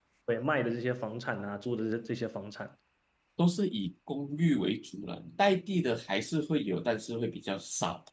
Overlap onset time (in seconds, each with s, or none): none